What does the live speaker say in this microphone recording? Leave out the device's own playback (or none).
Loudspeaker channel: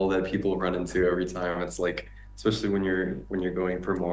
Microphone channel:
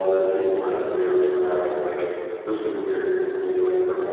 none